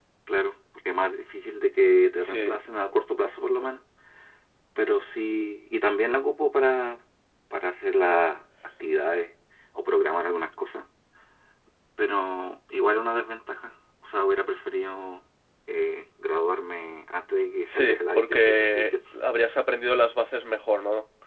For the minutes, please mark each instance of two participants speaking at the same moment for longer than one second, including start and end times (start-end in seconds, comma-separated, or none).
17.7-18.9